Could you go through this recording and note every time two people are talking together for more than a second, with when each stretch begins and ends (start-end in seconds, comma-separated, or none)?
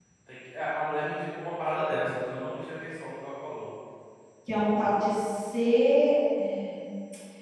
none